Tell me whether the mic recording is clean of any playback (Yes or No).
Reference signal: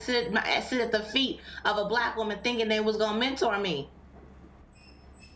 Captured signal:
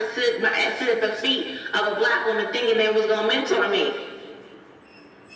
No